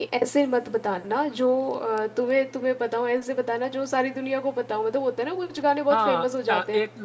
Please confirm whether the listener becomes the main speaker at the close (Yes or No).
Yes